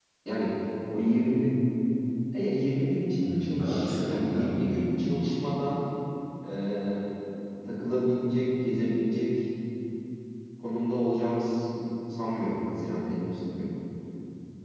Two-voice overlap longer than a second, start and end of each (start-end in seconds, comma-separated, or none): 3.2-4.8